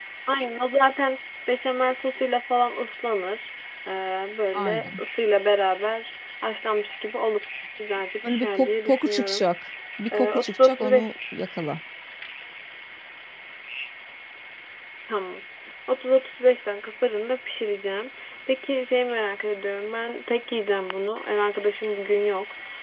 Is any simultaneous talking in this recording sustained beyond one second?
Yes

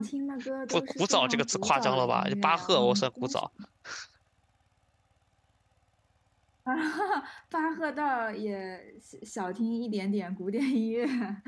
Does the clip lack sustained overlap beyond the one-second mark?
No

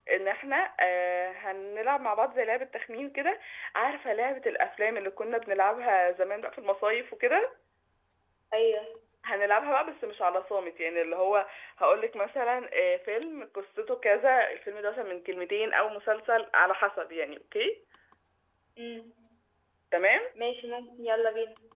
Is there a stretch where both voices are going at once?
No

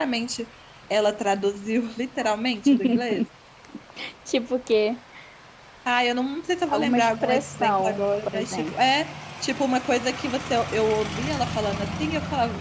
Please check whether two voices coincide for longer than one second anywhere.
Yes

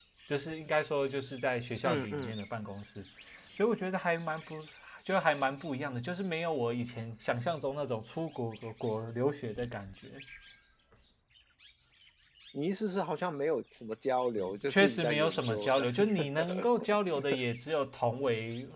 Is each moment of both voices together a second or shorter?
No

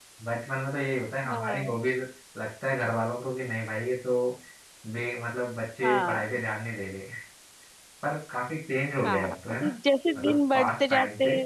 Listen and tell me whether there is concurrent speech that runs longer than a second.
Yes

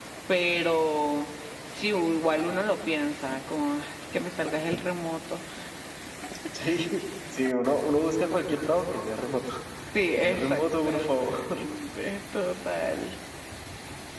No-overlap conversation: No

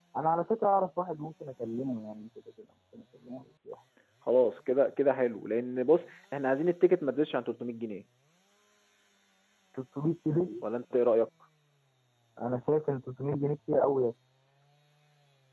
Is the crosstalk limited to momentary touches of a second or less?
Yes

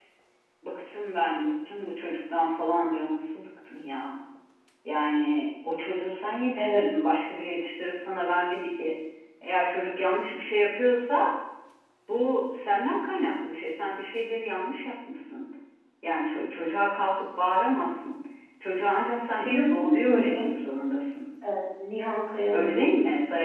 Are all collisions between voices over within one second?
No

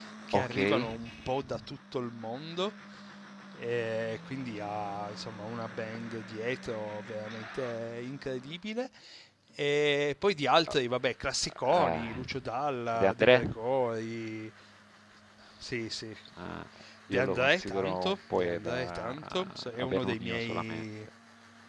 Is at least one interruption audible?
Yes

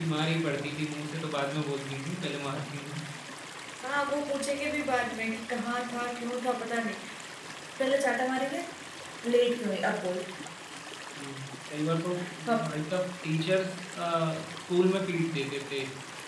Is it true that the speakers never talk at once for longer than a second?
Yes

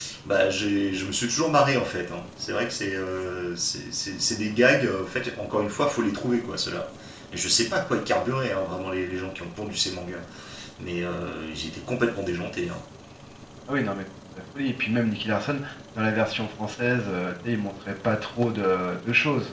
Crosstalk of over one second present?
No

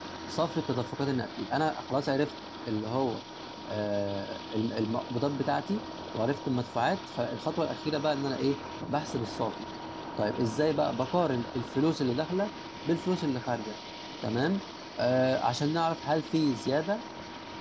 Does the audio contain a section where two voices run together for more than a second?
No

